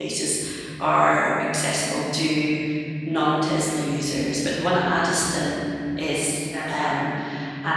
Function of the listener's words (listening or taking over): listening